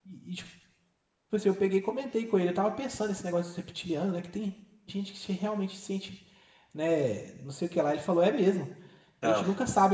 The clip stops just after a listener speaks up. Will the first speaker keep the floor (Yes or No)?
Yes